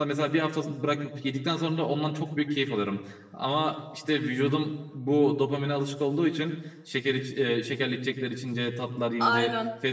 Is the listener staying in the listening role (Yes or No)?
Yes